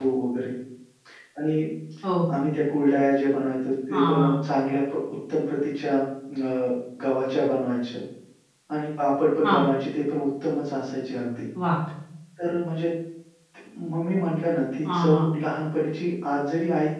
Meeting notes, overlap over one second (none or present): none